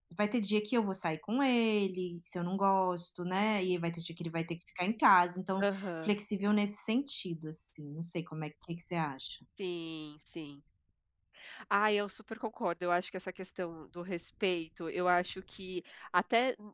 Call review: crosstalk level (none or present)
none